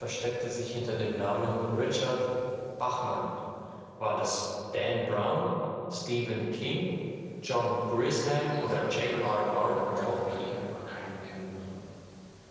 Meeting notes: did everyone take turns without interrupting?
No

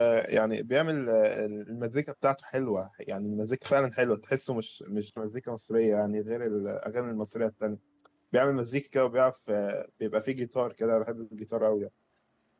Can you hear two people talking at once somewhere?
No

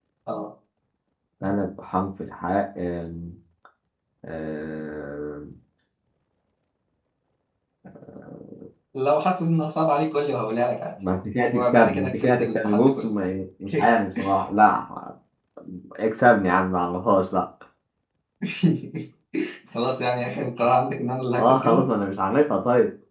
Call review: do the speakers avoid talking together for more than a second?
No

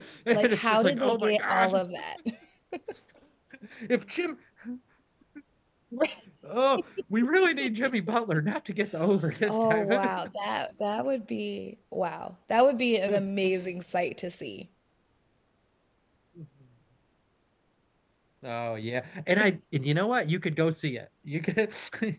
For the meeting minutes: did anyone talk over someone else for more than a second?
Yes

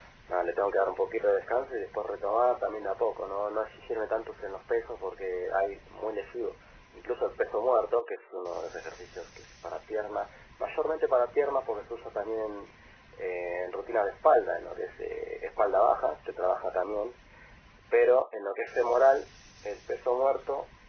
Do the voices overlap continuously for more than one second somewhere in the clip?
No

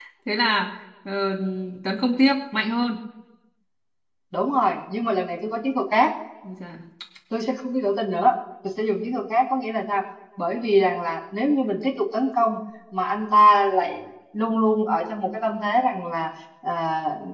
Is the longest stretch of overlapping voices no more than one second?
Yes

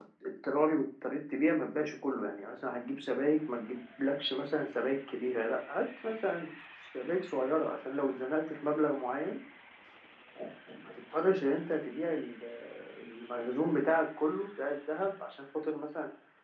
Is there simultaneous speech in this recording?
No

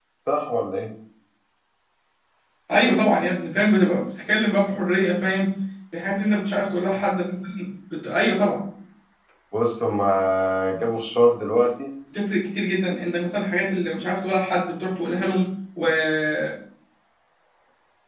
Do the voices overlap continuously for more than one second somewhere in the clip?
No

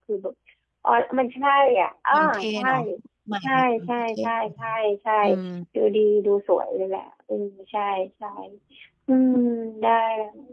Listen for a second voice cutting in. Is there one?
Yes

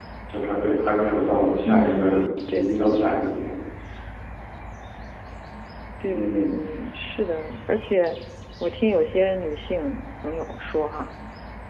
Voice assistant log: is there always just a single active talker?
No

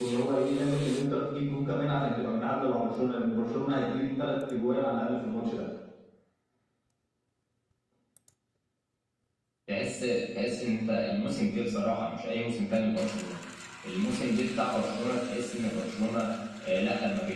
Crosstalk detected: No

